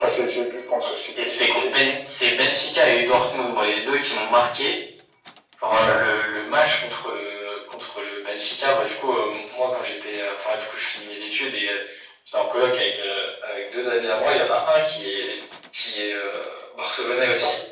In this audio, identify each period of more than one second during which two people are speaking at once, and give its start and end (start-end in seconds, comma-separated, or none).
none